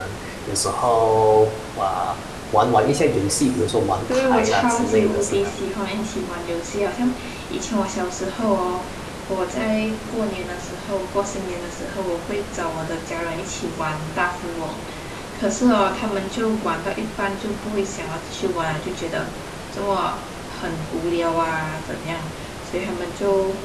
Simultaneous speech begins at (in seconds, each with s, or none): 4.1 s